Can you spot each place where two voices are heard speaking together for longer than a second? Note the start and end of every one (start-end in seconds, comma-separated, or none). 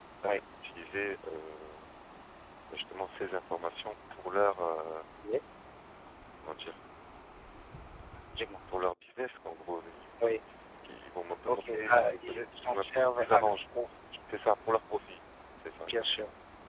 11.5-13.6